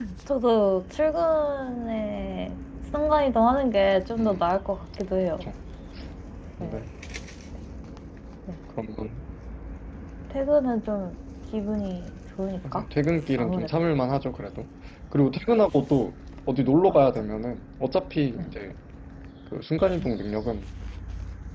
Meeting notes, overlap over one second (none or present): none